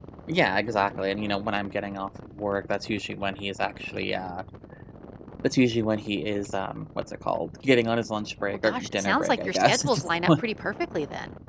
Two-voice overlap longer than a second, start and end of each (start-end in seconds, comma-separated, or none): 8.5-10.4